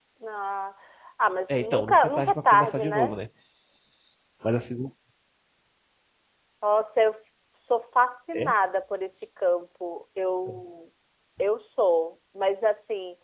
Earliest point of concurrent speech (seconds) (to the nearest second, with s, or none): 1 s